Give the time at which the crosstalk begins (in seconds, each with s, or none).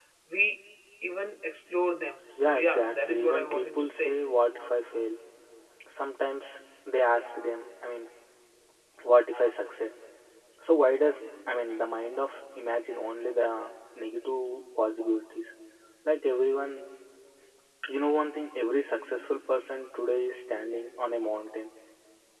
2.4 s